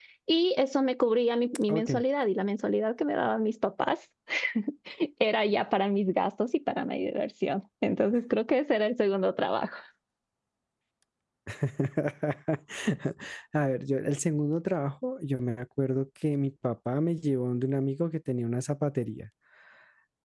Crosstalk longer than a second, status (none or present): none